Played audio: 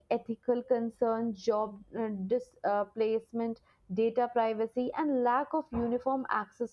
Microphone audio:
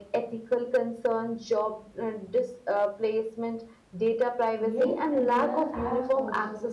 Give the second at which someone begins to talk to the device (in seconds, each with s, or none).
4.6 s